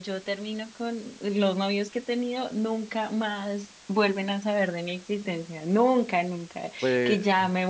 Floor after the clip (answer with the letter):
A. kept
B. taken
A